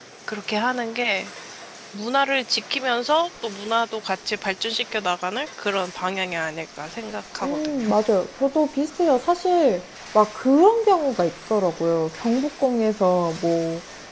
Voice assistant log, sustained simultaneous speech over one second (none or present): none